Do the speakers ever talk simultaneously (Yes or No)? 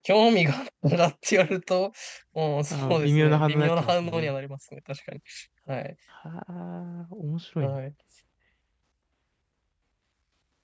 Yes